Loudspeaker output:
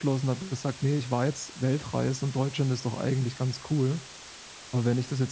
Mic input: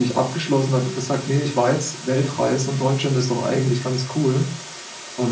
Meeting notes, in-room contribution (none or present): none